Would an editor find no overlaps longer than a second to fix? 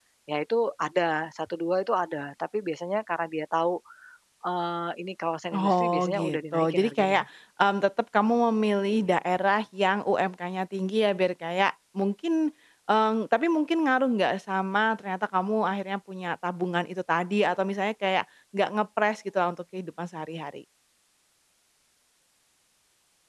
No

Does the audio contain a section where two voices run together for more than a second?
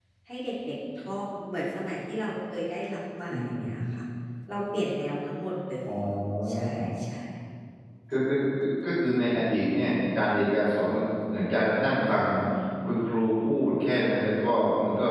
No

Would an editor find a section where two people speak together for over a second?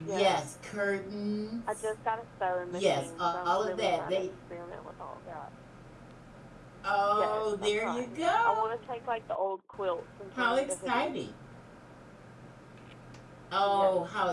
Yes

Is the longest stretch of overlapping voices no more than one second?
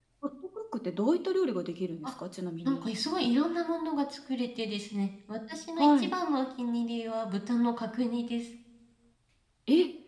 Yes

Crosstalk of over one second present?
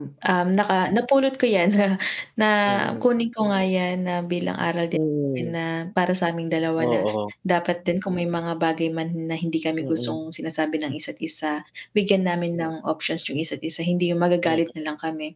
No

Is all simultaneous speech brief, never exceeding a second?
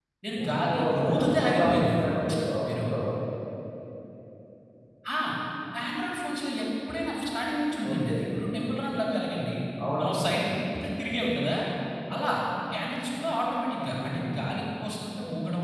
No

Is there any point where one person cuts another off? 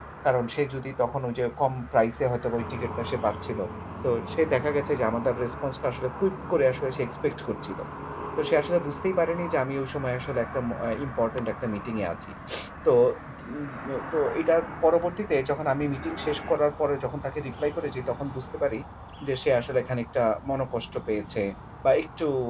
No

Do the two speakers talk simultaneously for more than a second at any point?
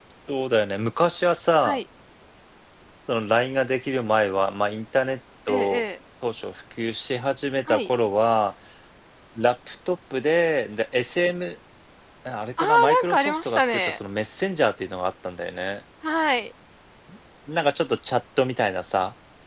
Yes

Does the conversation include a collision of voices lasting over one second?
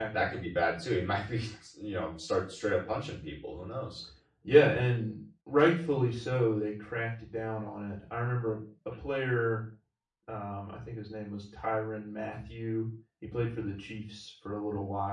No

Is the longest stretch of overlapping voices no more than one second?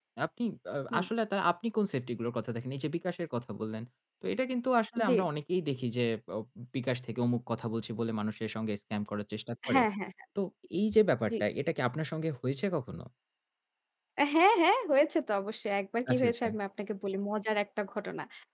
Yes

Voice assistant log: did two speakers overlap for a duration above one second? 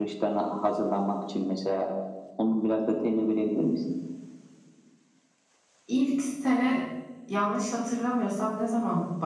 No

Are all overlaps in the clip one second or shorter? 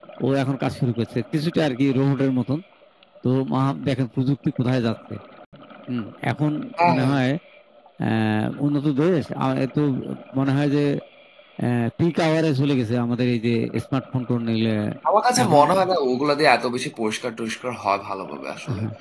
Yes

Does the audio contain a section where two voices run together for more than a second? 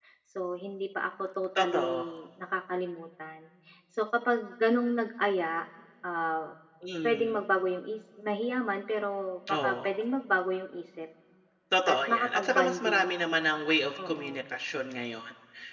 Yes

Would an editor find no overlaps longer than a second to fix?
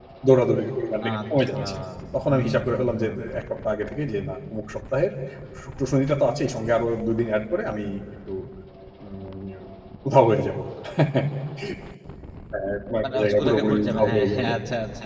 No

